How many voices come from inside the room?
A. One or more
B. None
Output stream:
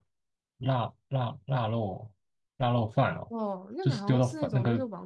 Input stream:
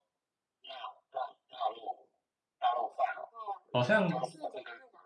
A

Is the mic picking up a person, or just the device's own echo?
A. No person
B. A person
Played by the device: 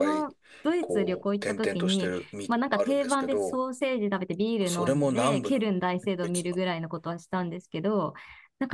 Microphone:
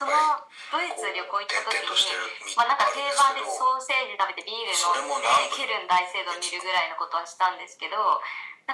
A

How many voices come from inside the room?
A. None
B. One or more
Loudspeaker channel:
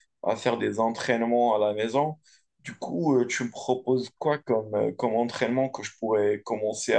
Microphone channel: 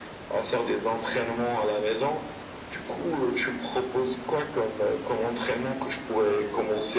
A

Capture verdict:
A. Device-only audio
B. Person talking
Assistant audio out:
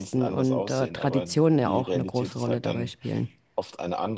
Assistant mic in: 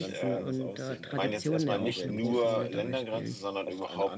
B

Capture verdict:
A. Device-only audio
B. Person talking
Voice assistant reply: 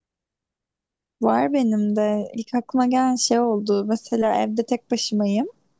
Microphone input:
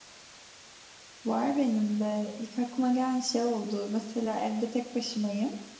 A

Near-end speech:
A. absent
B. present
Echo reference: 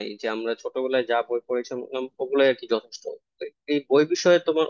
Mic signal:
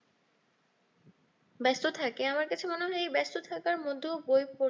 B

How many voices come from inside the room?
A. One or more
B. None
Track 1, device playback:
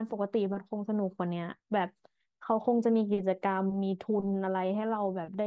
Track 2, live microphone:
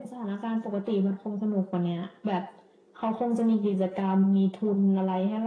B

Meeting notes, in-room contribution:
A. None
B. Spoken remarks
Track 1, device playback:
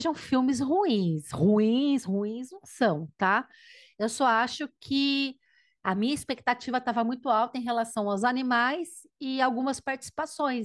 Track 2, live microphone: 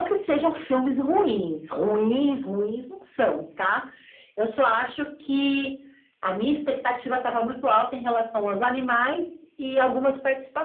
A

